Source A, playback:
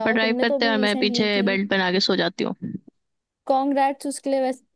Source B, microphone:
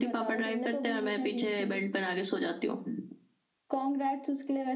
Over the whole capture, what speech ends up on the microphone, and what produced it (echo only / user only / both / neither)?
echo only